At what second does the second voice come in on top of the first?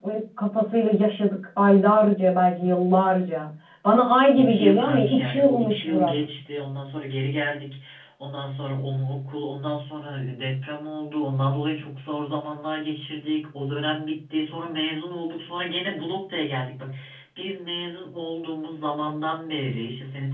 4 s

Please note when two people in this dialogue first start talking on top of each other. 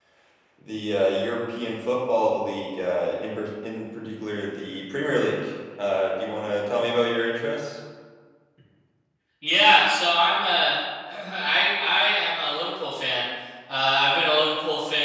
none

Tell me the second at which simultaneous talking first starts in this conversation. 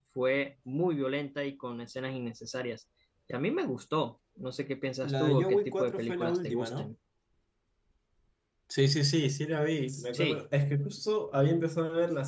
5 s

